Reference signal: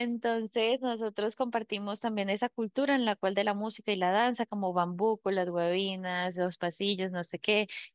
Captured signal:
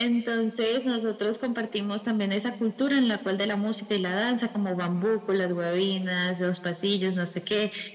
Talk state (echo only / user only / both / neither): echo only